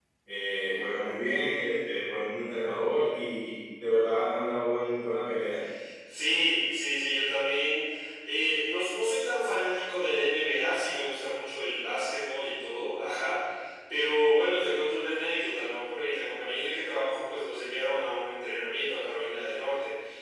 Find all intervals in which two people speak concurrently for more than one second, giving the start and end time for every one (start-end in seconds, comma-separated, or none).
none